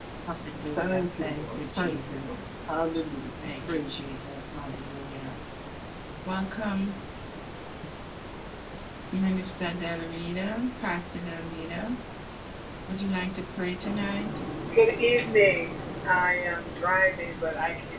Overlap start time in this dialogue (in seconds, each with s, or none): 0.8 s